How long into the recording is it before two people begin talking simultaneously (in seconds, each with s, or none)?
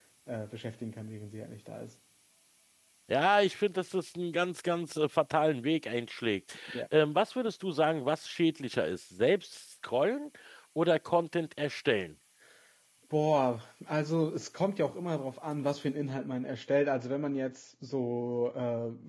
none